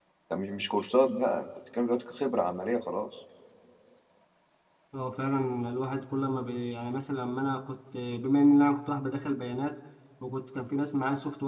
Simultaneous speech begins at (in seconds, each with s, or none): none